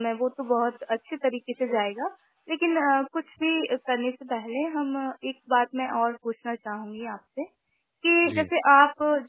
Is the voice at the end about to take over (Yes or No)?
No